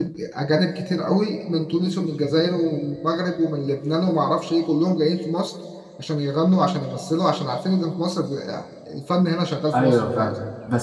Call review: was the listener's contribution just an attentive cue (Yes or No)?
No